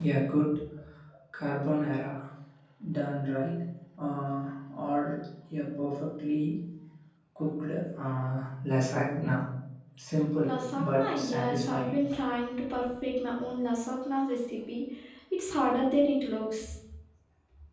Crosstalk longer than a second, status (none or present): present